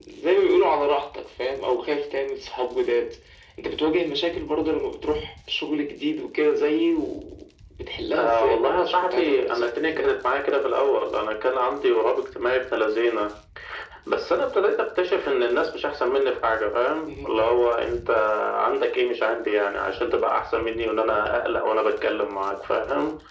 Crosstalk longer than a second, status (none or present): present